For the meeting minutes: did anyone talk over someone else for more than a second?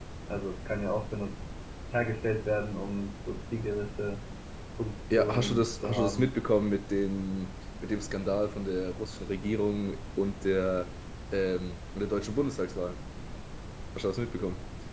Yes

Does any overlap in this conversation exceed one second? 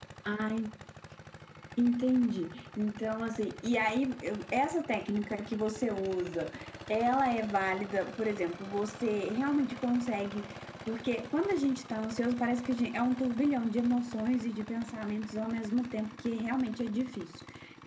No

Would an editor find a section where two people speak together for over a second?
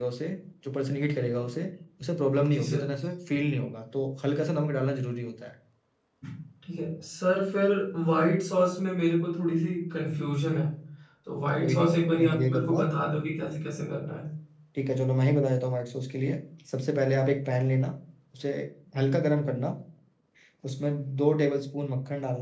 Yes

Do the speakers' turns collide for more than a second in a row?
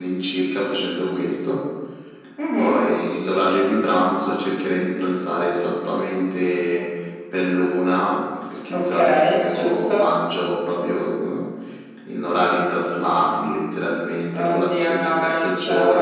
Yes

